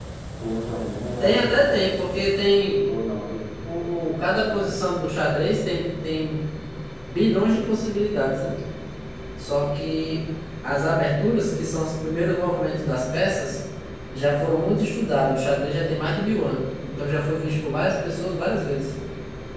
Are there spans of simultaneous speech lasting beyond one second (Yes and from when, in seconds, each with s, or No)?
No